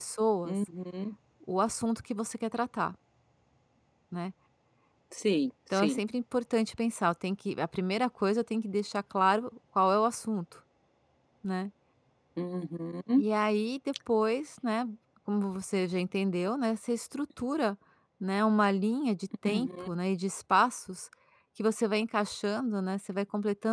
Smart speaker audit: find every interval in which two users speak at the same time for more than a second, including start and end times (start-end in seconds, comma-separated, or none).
none